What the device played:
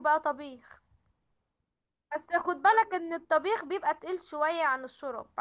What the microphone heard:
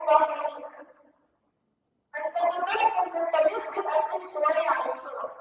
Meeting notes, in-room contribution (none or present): none